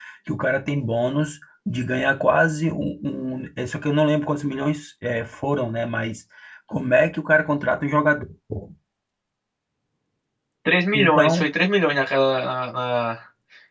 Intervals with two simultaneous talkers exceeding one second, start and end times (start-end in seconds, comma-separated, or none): none